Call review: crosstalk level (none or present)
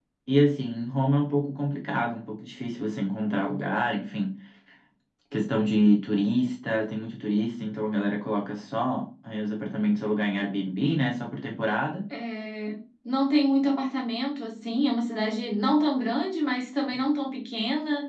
none